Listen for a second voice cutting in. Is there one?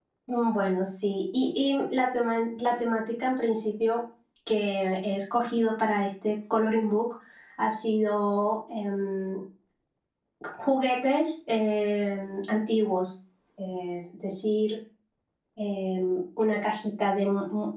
No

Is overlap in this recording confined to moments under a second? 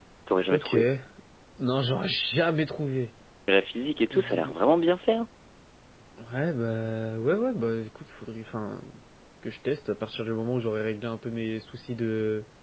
Yes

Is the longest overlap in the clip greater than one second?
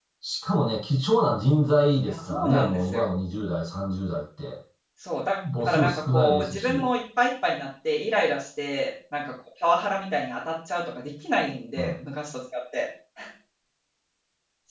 Yes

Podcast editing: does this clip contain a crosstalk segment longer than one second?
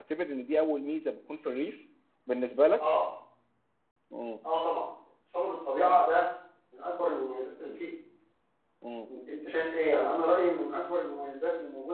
No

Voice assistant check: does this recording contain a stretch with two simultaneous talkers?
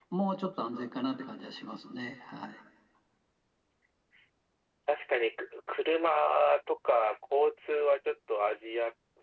No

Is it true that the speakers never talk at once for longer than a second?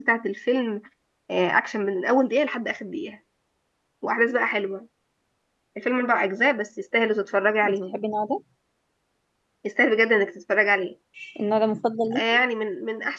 Yes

